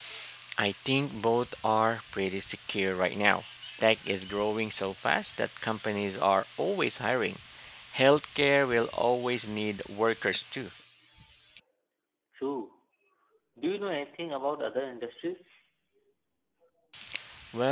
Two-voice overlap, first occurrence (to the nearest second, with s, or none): none